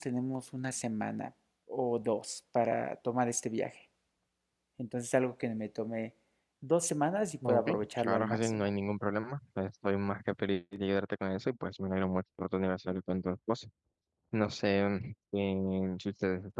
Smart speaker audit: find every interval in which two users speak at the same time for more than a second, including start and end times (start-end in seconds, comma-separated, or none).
7.5-8.7